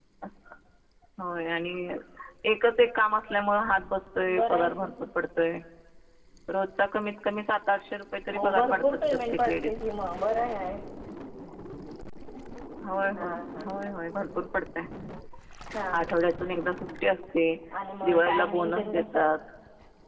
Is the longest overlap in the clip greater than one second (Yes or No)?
Yes